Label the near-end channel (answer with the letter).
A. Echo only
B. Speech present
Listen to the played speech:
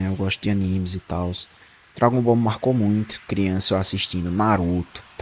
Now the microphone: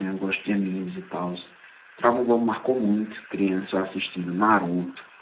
A